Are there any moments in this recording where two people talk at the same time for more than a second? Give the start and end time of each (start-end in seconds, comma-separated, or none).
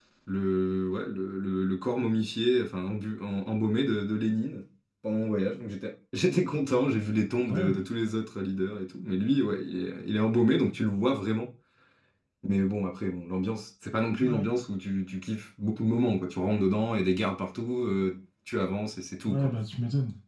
none